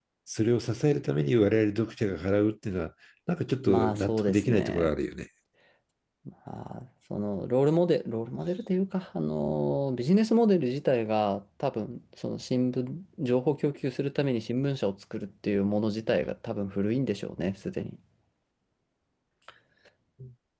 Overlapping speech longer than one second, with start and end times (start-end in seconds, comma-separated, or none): 3.7-4.9